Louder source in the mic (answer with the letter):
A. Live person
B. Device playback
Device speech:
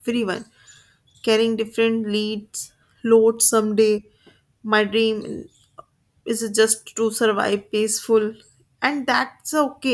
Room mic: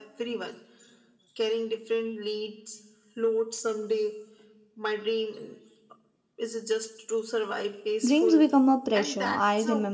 A